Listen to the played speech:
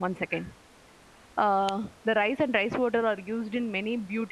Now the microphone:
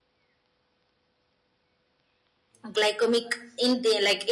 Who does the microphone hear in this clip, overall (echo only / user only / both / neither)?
user only